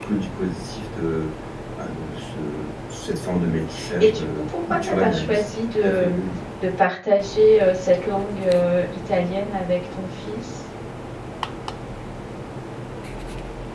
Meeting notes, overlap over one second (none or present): present